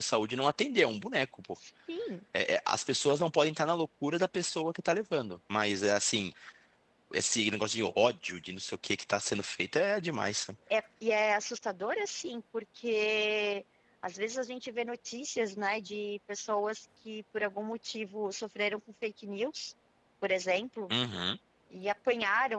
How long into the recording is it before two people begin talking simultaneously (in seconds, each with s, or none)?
none